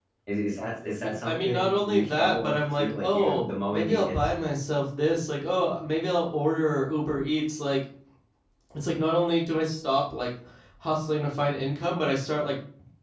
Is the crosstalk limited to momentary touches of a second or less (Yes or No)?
No